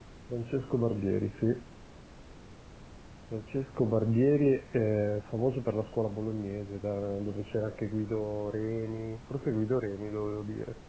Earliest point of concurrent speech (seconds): none

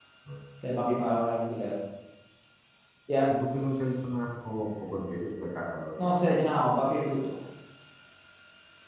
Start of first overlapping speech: none

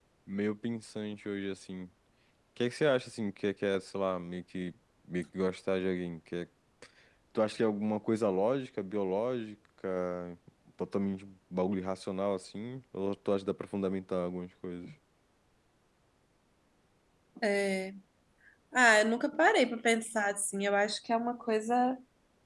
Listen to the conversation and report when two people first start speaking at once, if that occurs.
none

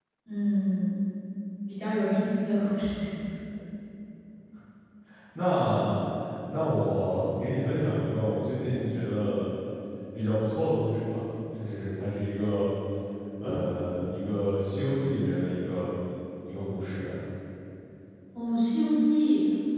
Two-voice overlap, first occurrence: none

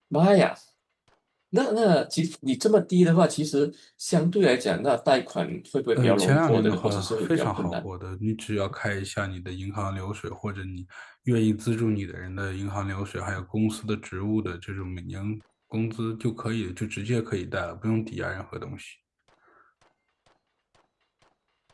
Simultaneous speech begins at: 6.0 s

